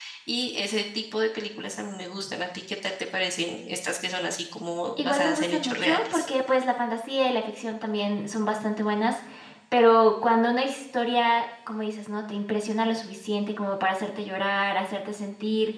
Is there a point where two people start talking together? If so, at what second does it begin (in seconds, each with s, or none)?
5.0 s